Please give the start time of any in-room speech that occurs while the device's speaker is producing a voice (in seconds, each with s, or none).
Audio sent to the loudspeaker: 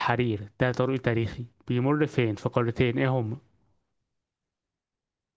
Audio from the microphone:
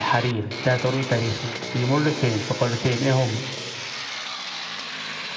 none